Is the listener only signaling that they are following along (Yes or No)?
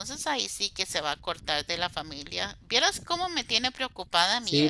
No